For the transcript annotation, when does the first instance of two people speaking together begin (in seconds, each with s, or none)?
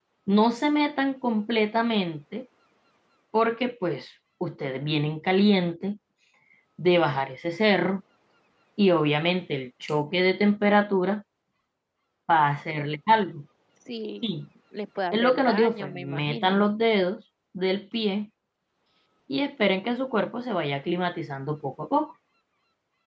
15.1 s